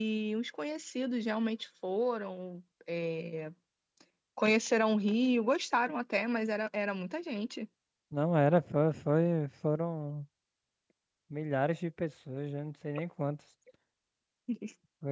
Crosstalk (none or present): none